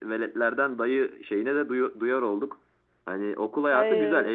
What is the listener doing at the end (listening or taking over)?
listening